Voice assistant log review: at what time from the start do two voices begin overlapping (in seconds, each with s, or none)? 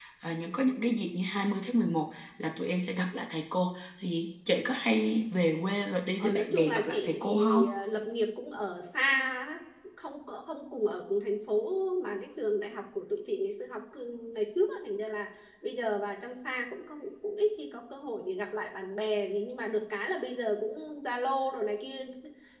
6.2 s